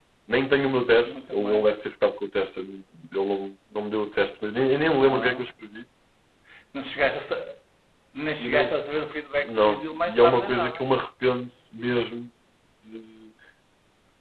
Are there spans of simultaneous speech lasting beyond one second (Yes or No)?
Yes